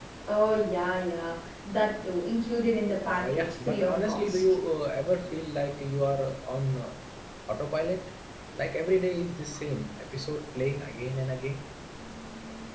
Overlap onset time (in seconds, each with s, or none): 3.0 s